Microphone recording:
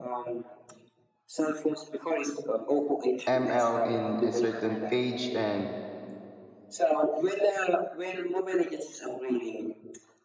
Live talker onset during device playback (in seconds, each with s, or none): 3.3 s